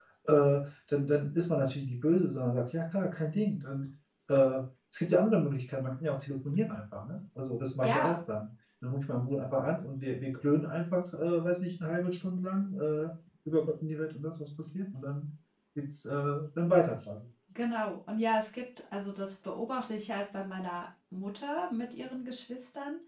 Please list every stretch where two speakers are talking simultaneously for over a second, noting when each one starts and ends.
none

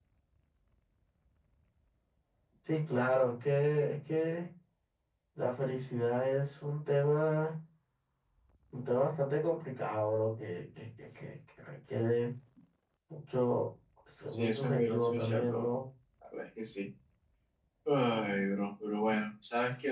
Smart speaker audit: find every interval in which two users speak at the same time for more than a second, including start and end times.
14.3-15.7

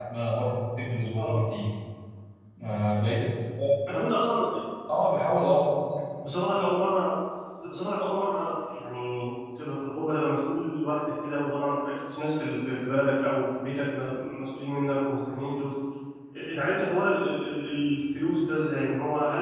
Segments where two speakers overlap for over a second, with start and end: none

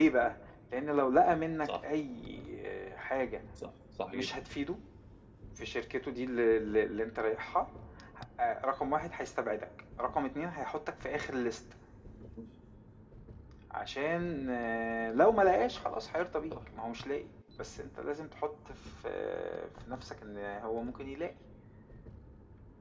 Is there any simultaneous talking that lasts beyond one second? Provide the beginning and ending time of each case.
none

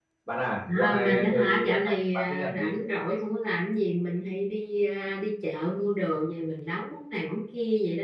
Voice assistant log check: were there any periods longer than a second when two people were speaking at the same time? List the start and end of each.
0.7-2.7

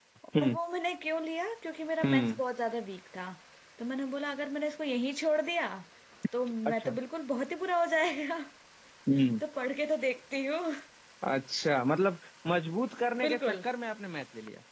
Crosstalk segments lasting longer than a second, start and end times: none

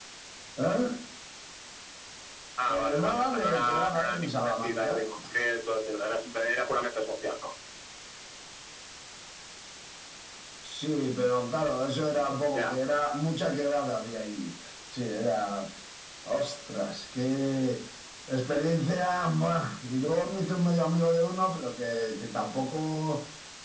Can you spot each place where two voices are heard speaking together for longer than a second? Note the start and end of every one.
2.8-4.9

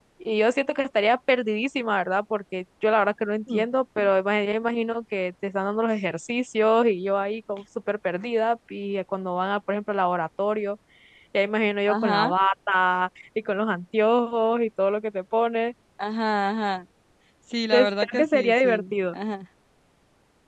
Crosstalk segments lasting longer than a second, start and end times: 17.7-19.1

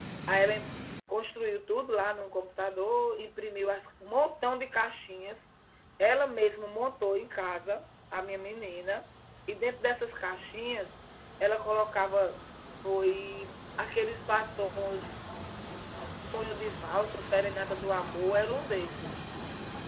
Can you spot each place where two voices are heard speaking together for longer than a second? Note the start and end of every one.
none

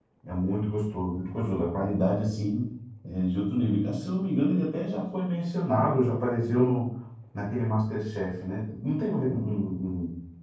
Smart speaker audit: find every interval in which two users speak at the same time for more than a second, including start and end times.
none

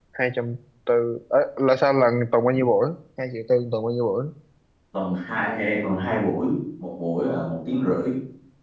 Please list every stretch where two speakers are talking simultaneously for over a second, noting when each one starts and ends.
none

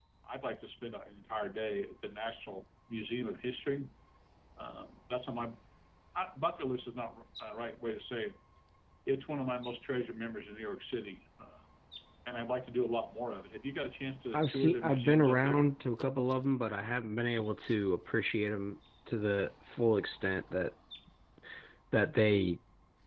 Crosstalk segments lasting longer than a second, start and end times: 14.3-15.7

